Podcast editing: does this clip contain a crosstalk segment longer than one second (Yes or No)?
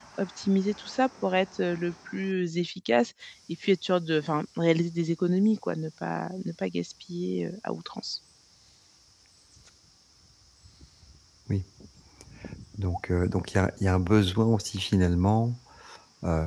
No